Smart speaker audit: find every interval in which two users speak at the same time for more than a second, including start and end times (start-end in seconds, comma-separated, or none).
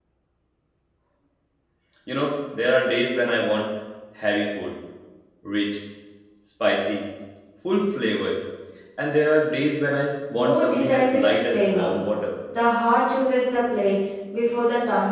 10.3-12.0